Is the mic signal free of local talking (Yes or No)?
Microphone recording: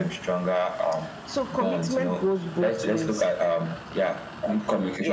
Yes